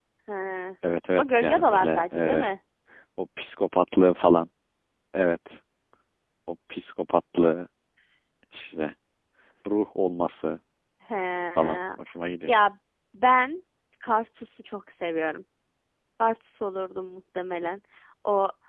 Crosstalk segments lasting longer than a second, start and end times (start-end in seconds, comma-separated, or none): 1.2-2.5